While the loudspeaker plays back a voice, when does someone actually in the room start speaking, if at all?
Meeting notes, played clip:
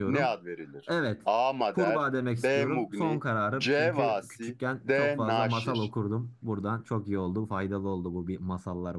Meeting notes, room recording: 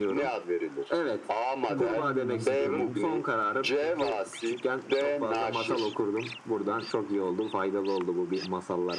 1.7 s

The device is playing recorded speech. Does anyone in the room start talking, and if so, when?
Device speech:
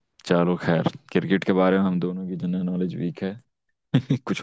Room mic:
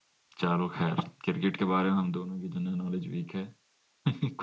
none

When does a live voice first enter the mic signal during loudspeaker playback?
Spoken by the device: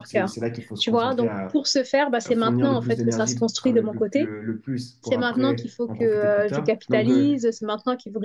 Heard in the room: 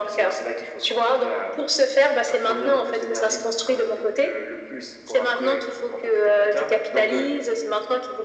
none

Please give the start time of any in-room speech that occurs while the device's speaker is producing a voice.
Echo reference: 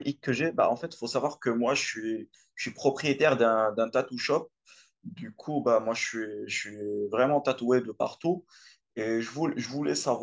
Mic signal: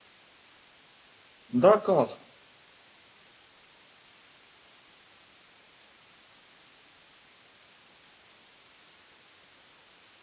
1.5 s

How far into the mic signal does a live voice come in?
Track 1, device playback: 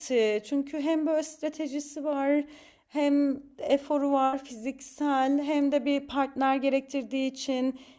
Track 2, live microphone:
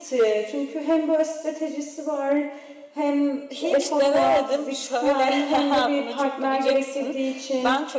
3.5 s

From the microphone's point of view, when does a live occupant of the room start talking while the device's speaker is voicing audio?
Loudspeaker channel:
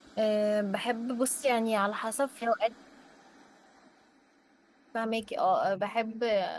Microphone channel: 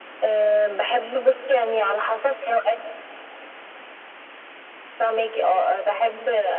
none

